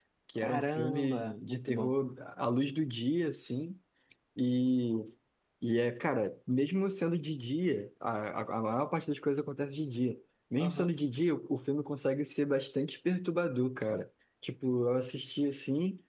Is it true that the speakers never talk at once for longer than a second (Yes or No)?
No